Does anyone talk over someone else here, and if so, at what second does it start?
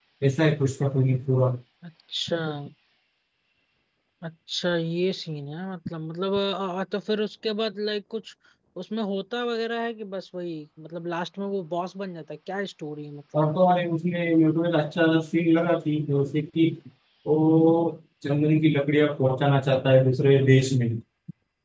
none

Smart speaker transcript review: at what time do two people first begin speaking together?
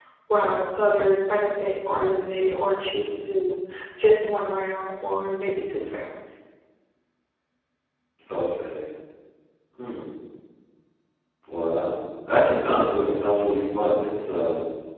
none

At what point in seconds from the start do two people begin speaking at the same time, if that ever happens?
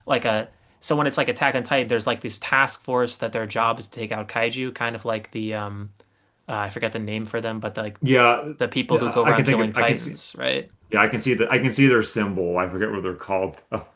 8.9 s

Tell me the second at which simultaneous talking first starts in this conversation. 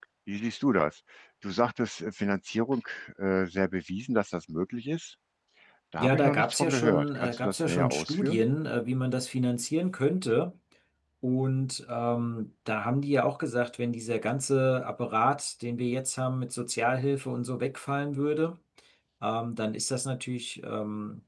6.0 s

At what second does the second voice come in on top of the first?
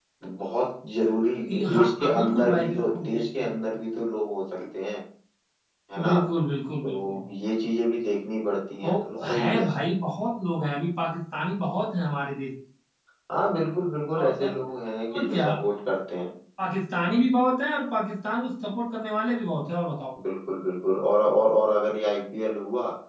1.5 s

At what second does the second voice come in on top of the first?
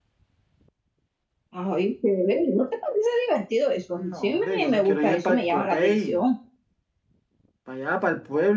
3.9 s

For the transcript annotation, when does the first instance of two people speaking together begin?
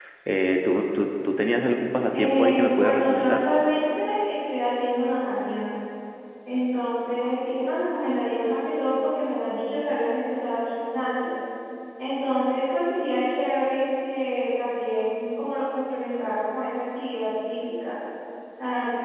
2.1 s

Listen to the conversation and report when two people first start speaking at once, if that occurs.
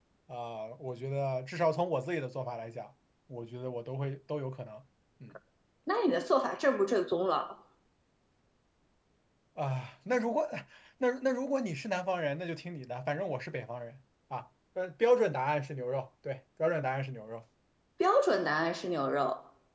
none

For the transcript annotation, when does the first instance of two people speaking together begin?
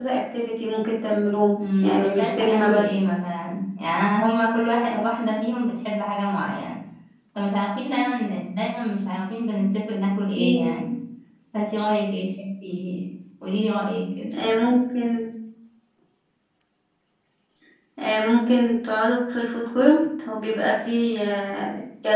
1.8 s

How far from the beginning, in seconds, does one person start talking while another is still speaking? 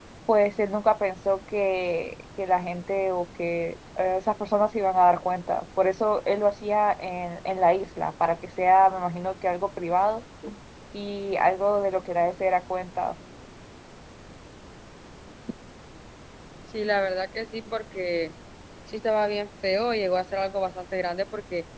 none

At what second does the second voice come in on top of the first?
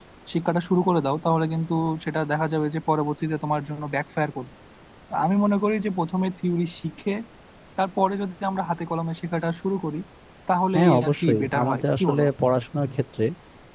10.7 s

